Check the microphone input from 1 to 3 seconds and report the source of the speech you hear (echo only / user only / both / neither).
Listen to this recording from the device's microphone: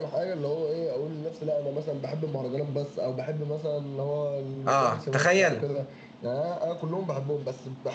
echo only